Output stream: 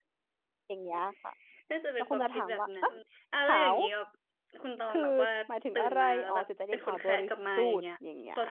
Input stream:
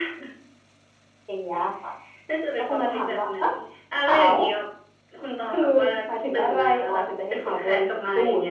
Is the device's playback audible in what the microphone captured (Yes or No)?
Yes